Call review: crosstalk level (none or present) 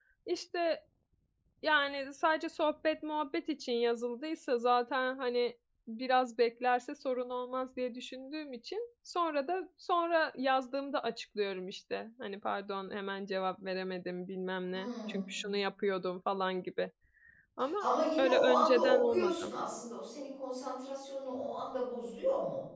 present